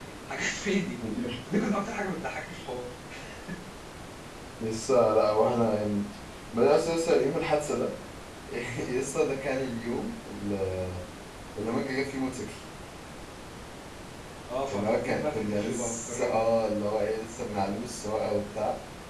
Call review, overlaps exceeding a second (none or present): present